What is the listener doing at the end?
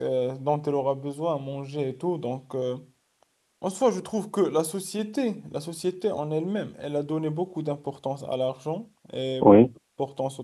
listening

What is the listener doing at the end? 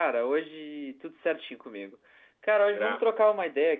listening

